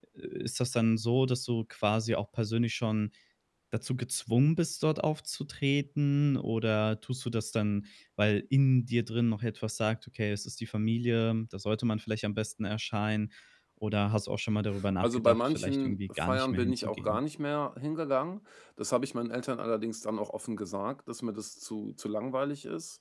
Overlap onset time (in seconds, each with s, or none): 15.0 s